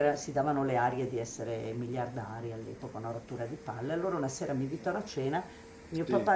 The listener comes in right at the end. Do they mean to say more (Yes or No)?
No